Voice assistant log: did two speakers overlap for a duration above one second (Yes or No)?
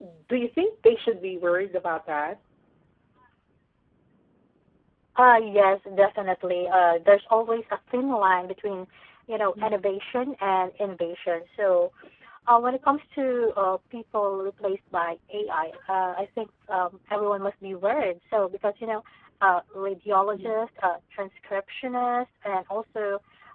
No